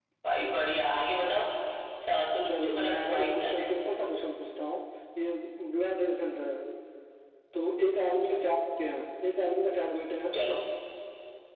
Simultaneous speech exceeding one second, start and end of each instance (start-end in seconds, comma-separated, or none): 2.5-3.7